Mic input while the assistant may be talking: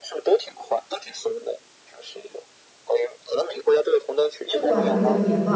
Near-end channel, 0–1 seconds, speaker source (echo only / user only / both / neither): echo only